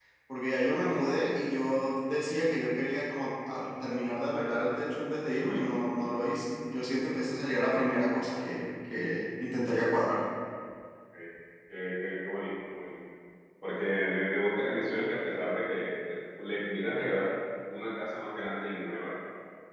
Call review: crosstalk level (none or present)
none